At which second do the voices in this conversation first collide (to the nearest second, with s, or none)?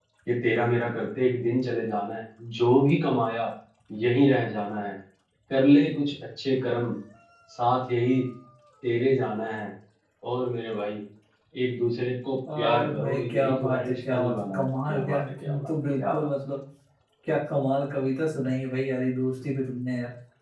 12 s